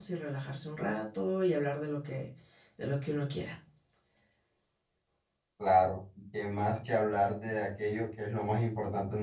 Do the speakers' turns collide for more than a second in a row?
No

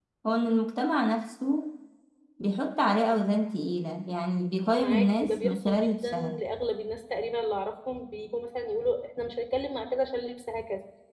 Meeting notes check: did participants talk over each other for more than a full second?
Yes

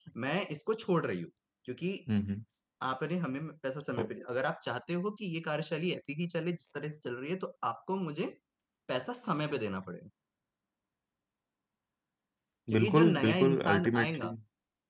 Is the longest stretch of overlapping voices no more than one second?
No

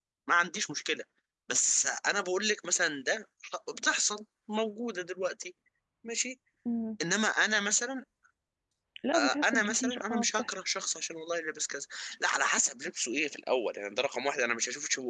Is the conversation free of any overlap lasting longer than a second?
No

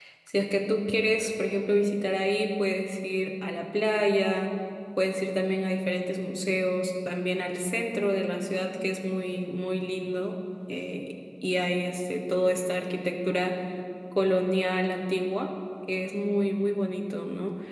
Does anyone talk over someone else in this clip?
No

